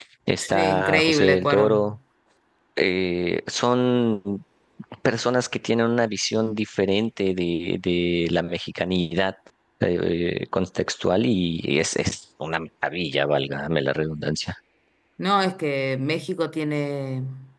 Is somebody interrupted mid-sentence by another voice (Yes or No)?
Yes